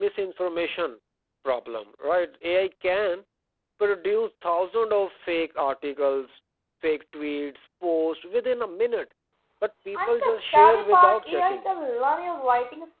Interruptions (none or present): present